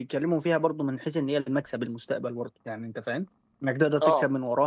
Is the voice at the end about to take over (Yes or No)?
No